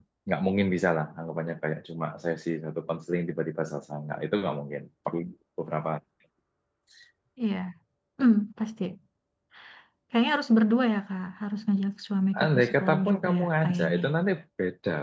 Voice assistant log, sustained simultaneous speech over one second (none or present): present